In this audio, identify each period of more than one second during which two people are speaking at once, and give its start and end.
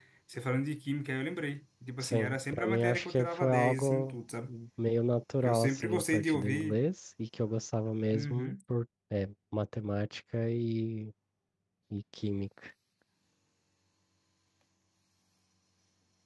2.0-4.2, 5.4-6.8

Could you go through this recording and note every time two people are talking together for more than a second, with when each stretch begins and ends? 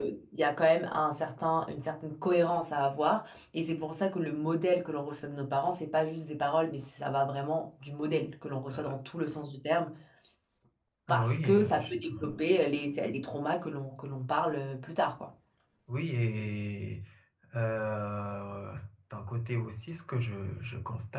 11.1-12.3

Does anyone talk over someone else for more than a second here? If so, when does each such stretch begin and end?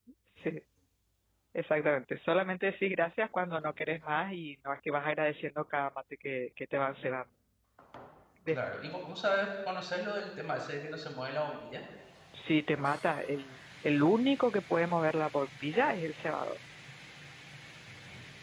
none

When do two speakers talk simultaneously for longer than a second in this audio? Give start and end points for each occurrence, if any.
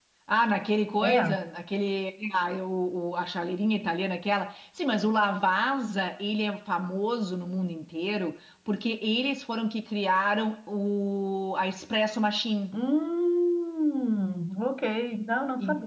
none

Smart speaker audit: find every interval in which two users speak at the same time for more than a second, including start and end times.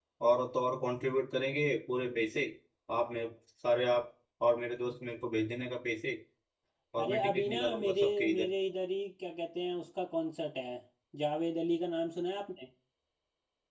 7.0-8.5

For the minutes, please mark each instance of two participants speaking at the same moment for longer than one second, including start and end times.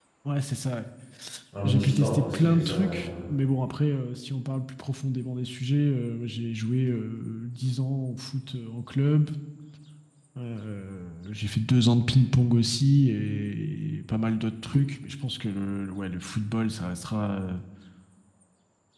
1.6-3.2

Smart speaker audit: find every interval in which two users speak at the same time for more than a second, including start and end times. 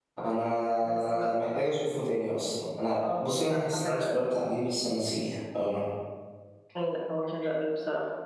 3.0-4.2

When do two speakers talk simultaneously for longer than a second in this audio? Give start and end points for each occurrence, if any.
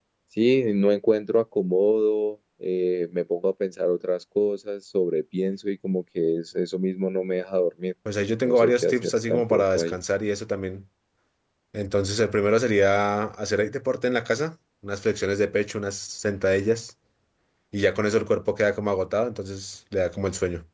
8.4-10.0

